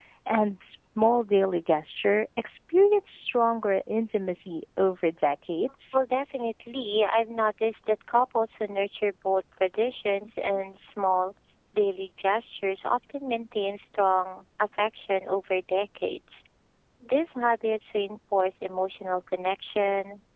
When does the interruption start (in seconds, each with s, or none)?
none